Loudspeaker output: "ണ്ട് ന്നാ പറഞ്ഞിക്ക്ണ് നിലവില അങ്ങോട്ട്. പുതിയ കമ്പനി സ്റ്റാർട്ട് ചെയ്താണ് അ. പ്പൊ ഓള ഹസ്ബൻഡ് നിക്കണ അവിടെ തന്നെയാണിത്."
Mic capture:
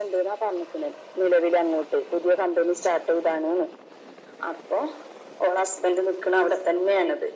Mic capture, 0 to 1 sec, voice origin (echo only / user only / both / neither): echo only